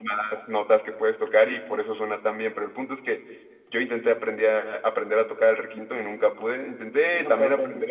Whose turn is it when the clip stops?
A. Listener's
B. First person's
B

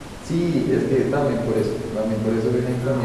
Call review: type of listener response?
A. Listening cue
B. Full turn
A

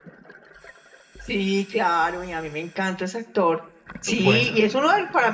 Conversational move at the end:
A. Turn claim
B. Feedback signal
B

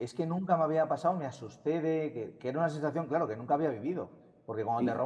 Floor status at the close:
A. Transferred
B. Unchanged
B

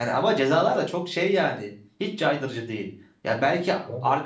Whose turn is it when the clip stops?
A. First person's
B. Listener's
A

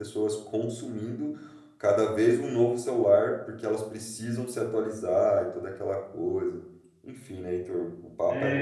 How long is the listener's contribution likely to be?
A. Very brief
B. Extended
B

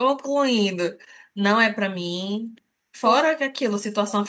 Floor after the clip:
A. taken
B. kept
B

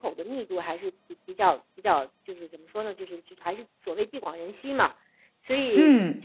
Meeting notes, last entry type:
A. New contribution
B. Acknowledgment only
B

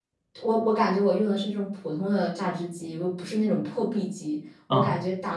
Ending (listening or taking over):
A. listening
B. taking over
A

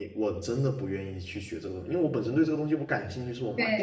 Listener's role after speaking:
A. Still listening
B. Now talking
B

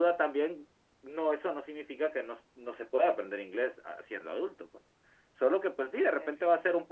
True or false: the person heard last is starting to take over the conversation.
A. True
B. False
B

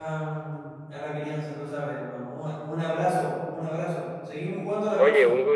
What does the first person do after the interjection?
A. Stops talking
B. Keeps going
A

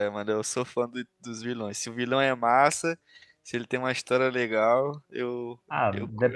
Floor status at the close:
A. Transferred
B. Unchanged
A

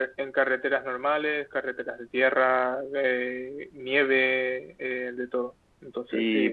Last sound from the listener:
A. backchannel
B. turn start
B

